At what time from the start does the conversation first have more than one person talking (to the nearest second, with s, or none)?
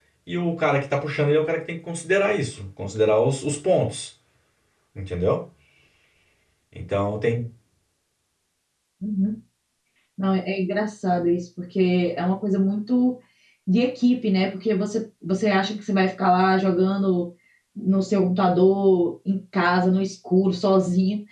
none